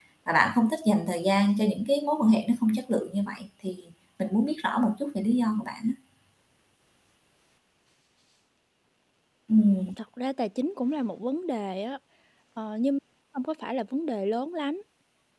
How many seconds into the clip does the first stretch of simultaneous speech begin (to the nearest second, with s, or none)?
none